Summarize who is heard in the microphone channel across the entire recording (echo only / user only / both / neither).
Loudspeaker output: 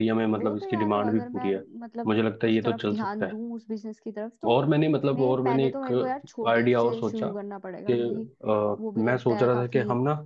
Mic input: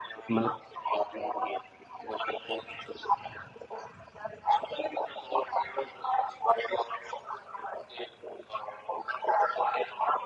both